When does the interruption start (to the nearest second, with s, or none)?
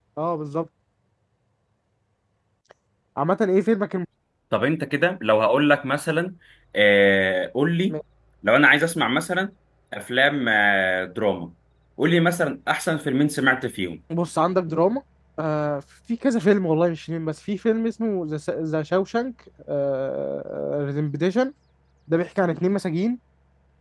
none